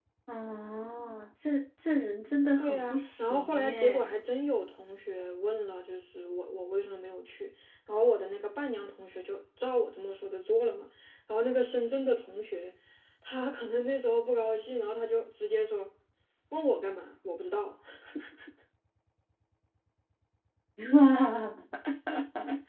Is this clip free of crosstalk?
No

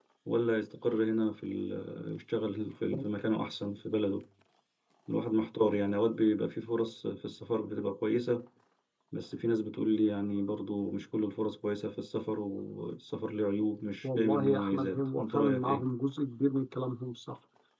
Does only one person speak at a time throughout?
No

